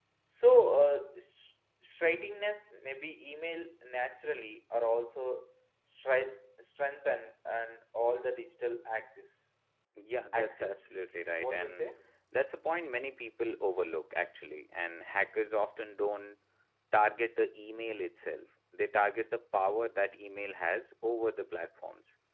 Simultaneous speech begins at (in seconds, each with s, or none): 10.3 s